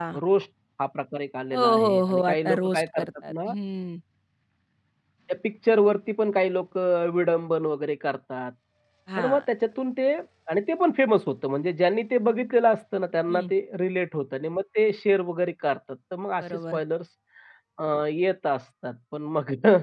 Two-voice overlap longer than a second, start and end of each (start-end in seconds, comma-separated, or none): 1.5-3.5